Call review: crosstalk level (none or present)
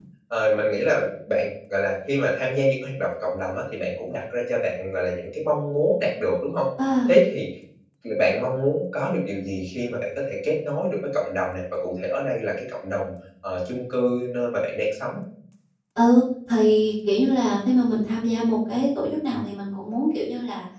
none